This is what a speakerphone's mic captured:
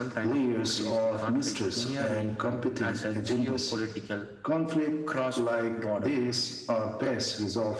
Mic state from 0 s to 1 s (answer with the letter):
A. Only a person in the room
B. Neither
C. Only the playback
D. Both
C